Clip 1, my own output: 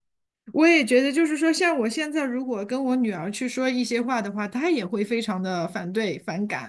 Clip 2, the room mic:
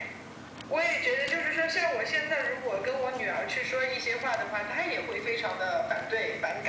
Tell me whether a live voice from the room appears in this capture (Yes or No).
No